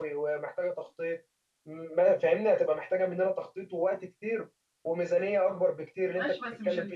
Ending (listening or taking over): taking over